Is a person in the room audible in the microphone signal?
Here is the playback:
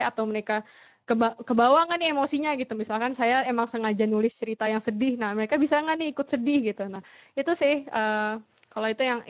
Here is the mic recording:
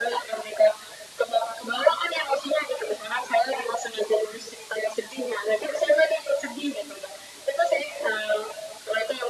No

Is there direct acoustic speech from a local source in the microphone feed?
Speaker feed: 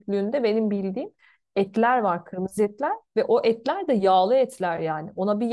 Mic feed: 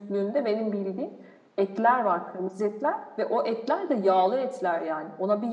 No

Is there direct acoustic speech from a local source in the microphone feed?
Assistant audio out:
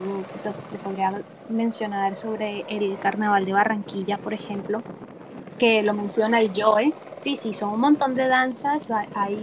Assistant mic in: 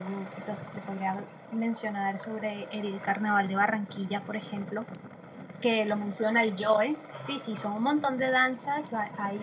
Yes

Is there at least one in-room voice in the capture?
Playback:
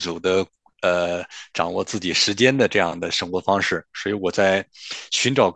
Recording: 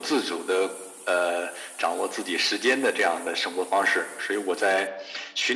No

